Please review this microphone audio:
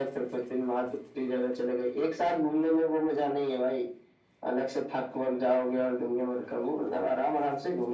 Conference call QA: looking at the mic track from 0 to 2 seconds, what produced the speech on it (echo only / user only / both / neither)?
echo only